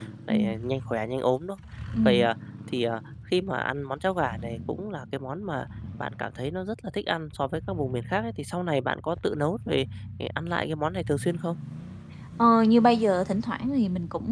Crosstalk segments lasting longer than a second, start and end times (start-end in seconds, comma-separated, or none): none